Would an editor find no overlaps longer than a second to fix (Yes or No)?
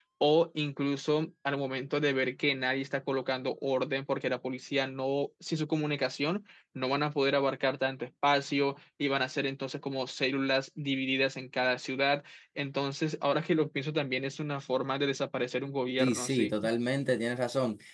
Yes